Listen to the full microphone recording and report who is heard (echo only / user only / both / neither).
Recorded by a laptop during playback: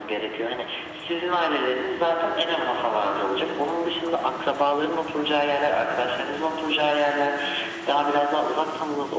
echo only